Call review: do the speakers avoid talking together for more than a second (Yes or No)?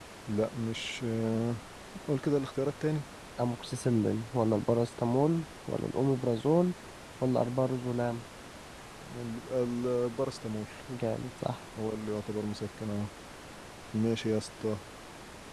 Yes